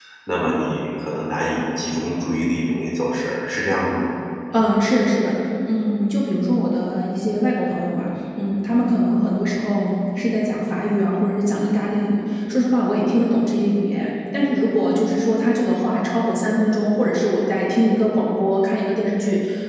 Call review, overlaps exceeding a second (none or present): none